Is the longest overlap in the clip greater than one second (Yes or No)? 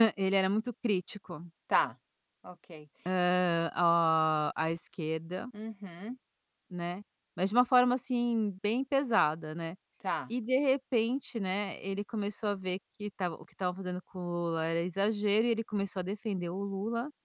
No